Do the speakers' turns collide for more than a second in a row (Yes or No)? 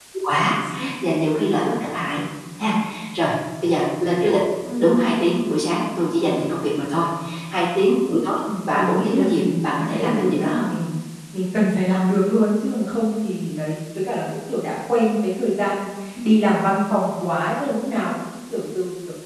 Yes